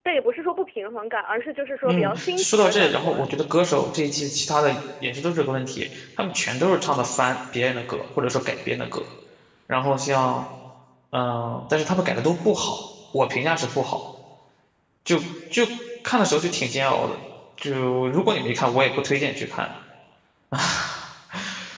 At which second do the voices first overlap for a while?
1.8 s

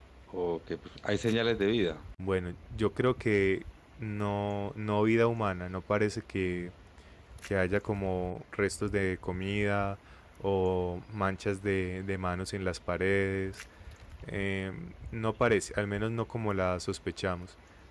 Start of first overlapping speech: none

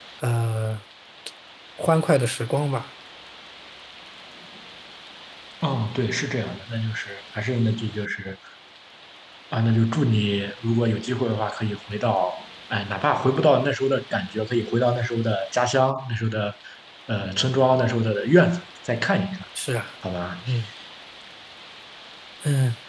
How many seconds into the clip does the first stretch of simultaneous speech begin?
none

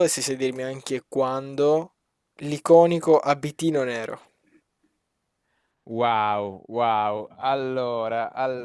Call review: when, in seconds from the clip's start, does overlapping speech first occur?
none

